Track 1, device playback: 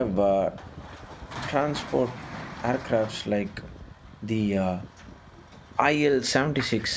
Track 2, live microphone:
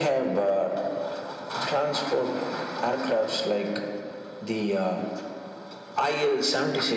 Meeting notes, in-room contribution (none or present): none